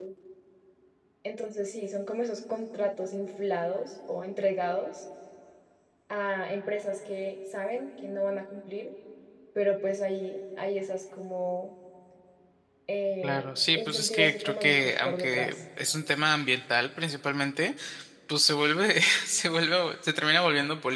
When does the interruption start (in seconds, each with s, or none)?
13.2 s